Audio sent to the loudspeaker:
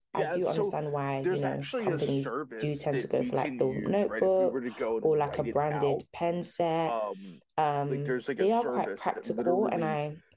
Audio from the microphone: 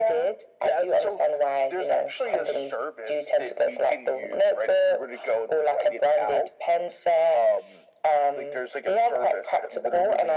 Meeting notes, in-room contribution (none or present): none